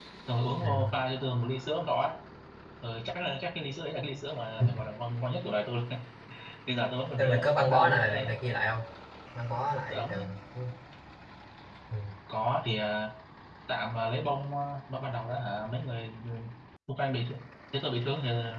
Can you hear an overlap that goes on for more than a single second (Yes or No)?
Yes